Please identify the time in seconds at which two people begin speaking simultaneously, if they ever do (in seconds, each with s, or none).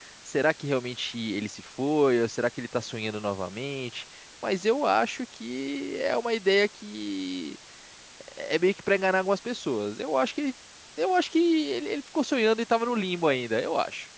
none